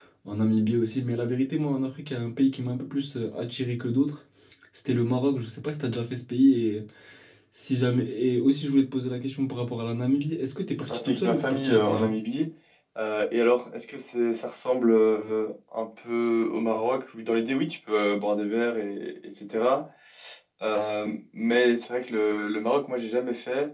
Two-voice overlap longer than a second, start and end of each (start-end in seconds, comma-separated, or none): 10.8-12.1